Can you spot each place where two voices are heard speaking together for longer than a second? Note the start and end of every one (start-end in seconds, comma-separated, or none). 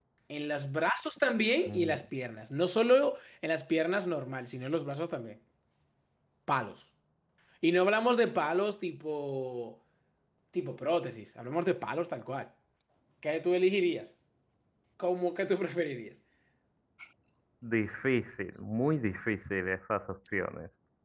none